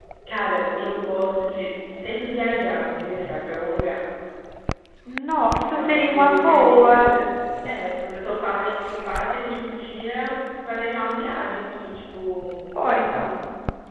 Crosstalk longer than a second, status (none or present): present